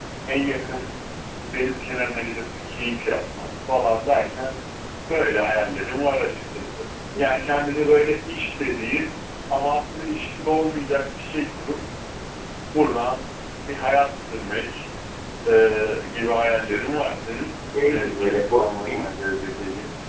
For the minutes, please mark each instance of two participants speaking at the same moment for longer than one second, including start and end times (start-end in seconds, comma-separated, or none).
17.8-19.0